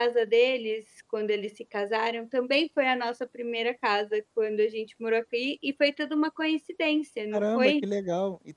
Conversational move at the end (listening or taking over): taking over